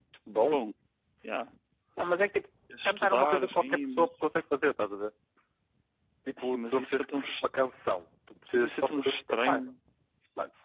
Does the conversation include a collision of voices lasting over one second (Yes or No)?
Yes